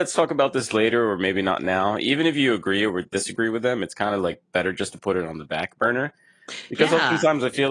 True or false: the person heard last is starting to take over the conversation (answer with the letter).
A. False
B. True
A